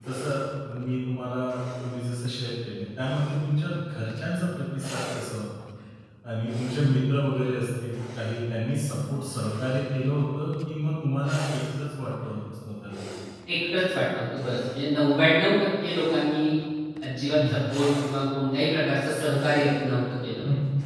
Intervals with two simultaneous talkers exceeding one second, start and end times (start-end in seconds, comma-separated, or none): none